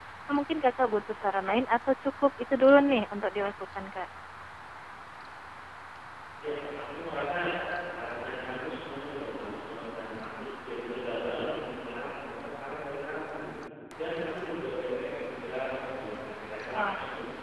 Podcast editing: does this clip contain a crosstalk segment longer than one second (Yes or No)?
No